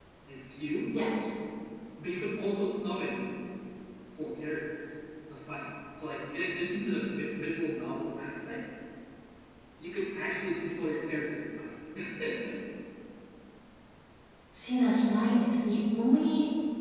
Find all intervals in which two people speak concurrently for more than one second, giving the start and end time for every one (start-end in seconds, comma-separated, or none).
none